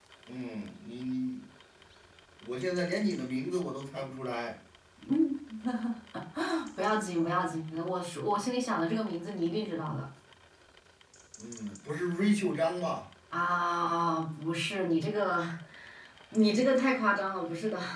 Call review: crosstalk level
none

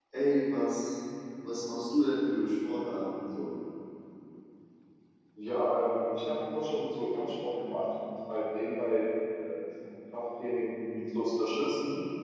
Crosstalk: none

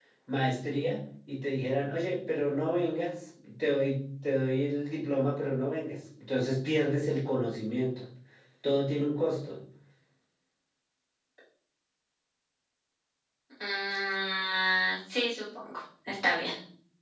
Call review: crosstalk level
none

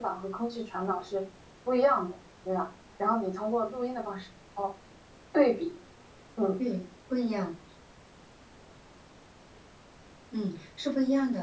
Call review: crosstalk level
none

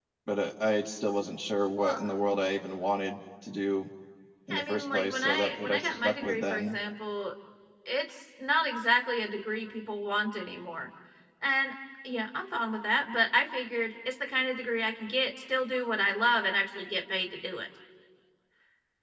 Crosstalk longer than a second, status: present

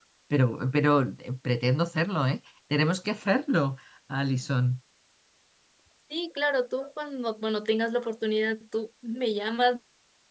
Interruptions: none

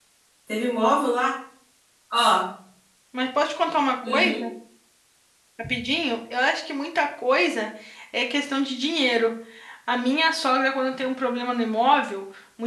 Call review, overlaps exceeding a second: none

